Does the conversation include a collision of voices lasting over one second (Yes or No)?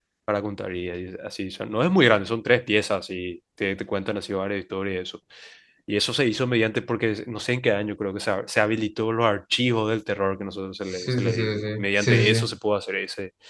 Yes